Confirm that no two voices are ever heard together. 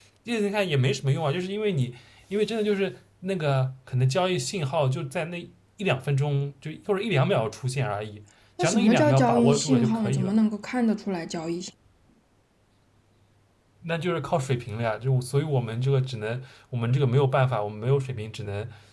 No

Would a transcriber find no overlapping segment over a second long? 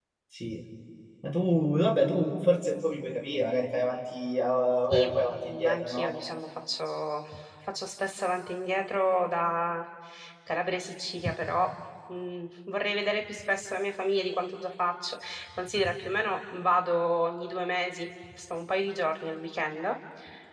No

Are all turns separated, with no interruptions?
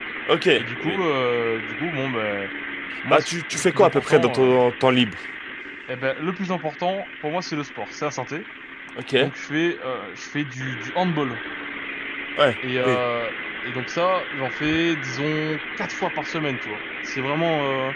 No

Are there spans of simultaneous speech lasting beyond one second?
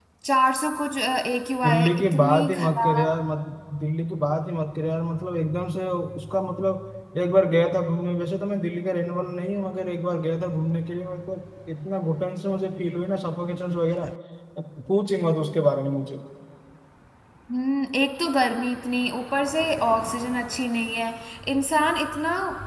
Yes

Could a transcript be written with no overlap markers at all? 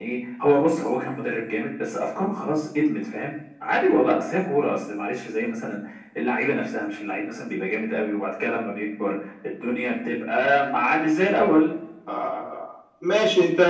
Yes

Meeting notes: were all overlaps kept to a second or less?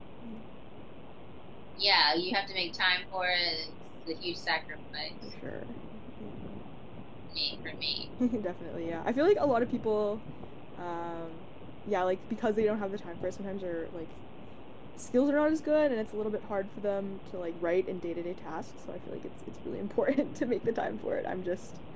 Yes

